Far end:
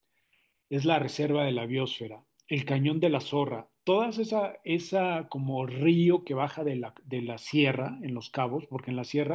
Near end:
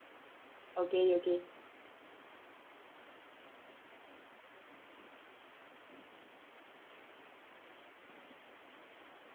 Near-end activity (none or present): present